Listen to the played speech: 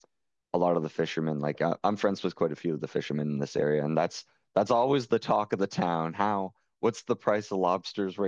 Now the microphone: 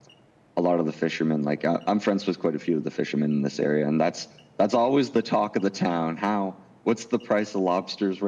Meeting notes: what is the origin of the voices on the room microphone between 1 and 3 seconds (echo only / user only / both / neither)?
echo only